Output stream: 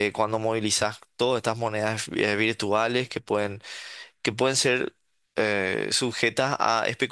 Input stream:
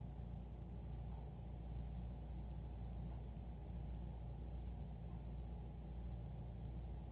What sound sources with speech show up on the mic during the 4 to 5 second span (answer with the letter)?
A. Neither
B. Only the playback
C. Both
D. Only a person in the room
A